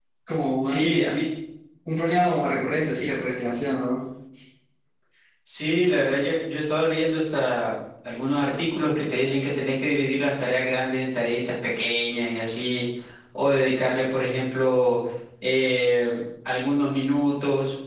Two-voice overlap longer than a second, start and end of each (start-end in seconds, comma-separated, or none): none